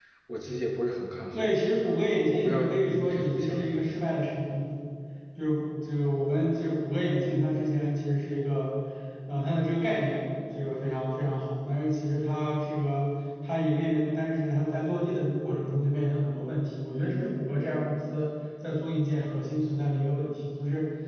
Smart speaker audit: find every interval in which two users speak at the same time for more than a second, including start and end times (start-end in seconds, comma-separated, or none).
2.1-3.8